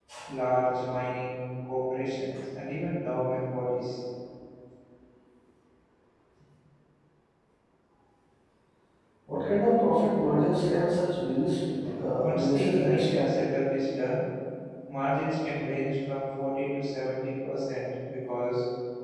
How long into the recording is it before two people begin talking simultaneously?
12.2 s

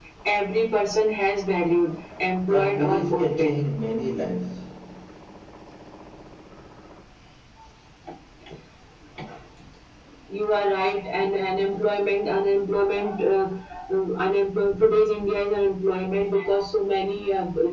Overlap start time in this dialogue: 2.4 s

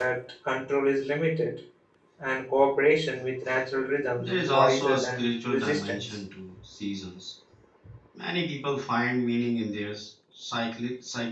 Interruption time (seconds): 4.2 s

